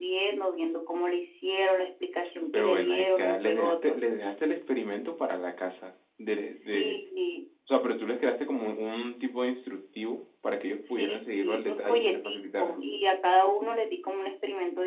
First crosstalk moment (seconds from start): 2.5 s

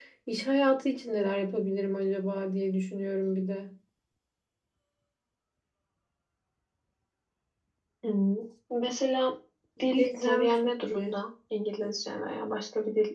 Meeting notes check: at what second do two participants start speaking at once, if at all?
9.9 s

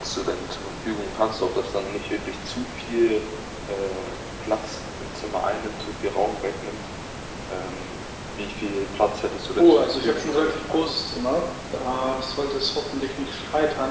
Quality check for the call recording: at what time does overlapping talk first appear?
9.6 s

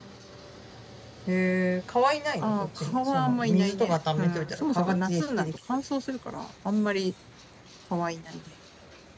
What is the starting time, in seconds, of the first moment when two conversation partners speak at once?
2.4 s

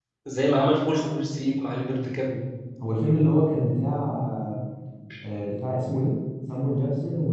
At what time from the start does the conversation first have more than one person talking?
none

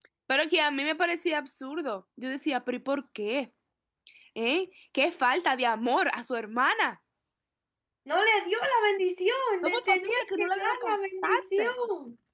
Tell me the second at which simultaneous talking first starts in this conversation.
9.6 s

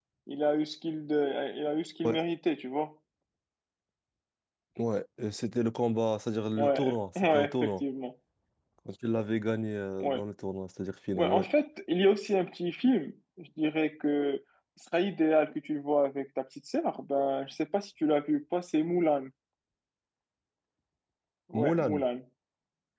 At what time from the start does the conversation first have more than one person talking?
6.6 s

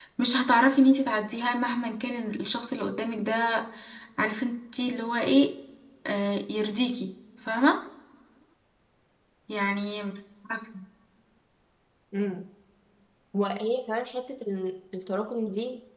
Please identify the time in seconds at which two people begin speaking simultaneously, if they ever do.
none

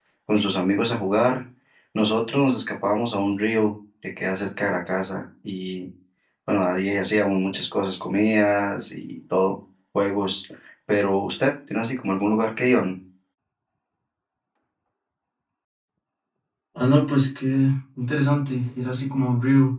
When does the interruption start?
none

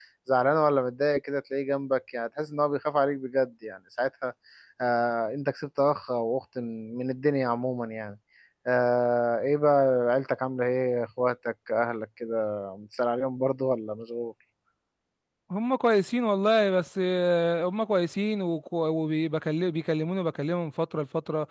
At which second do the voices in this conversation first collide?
none

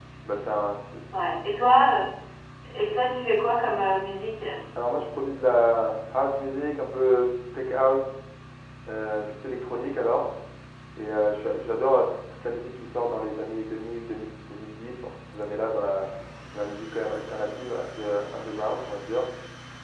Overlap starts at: none

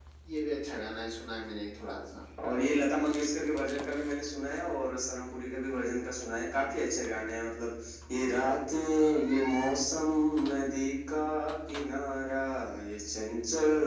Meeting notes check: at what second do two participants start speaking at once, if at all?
none

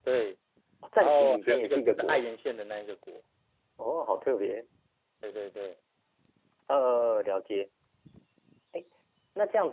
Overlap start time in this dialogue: 1.0 s

